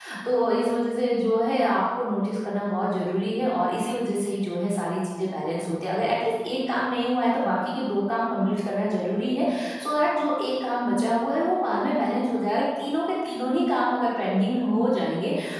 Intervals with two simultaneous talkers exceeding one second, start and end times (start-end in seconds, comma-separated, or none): none